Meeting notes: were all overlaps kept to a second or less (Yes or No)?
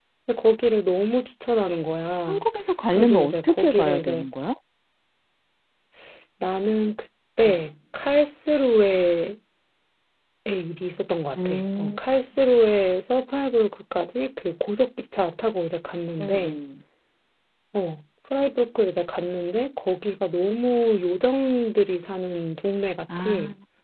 No